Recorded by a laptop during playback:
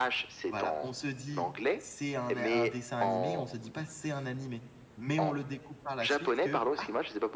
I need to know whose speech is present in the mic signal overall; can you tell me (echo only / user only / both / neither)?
both